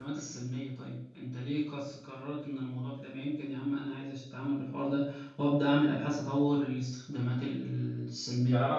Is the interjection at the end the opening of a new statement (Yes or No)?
Yes